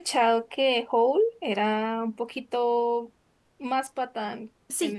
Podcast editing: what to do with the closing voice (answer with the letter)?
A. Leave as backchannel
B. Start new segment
B